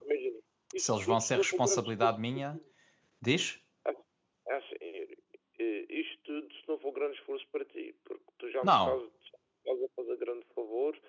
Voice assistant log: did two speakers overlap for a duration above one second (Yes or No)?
Yes